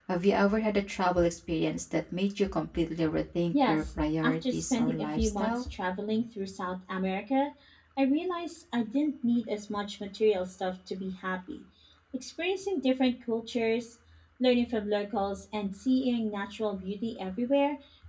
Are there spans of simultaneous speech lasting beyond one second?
Yes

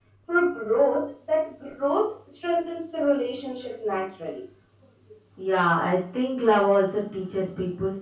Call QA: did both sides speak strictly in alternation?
Yes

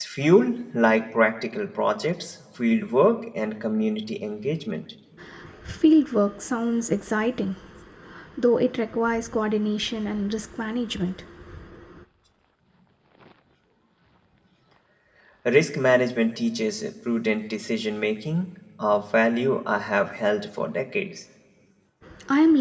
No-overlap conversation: Yes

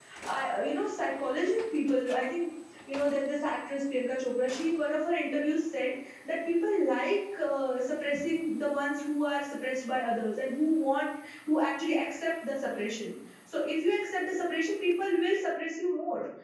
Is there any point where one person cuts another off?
No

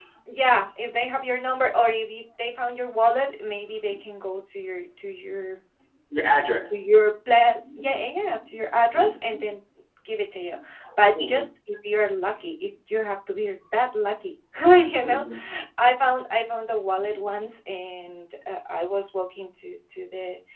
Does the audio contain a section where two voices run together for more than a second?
No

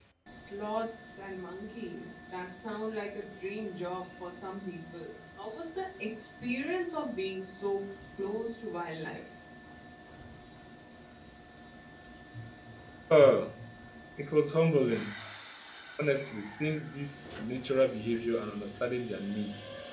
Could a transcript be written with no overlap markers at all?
Yes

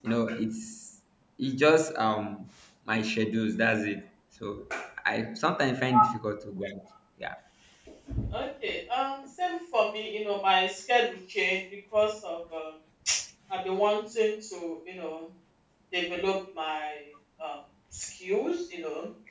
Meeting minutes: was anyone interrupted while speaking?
No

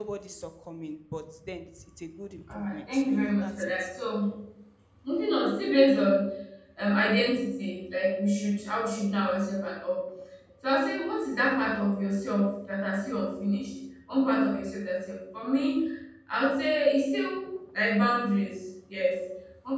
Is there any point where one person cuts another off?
Yes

